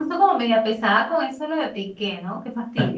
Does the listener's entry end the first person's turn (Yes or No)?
Yes